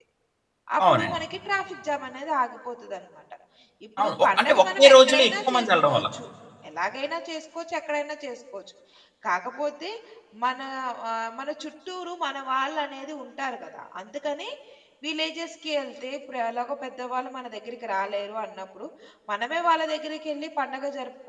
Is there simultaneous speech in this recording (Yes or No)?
Yes